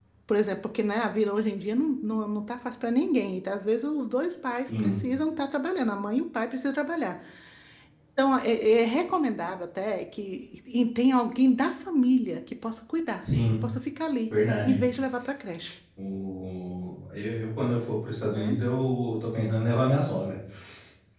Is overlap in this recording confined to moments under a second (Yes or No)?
Yes